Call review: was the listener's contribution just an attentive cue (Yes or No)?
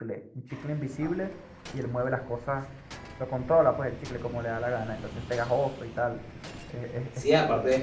No